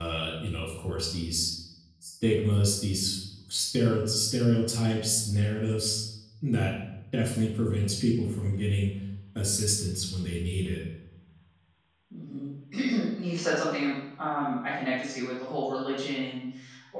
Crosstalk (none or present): none